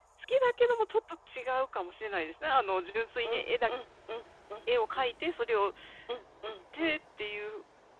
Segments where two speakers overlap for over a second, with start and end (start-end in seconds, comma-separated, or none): none